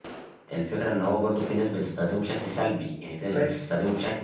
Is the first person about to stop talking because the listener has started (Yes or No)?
No